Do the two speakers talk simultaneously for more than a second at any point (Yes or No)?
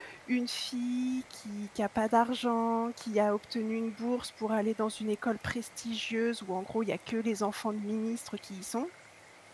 No